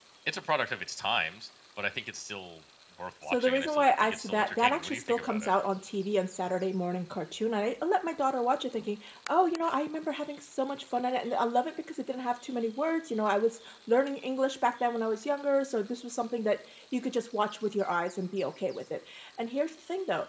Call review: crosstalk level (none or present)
present